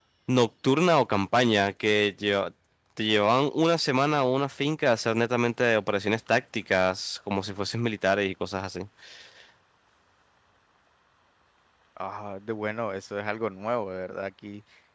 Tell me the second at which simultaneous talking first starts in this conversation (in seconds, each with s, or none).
none